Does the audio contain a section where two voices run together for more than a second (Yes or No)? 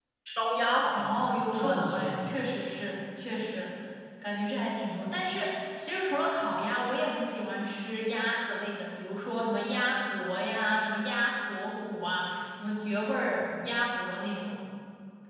Yes